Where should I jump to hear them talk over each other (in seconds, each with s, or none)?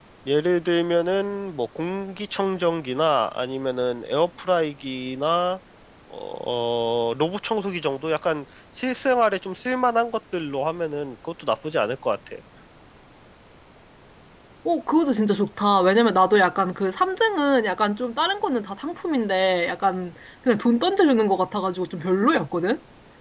none